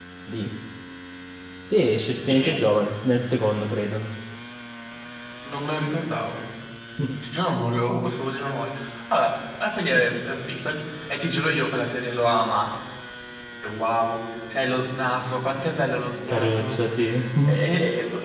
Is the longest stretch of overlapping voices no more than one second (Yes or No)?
Yes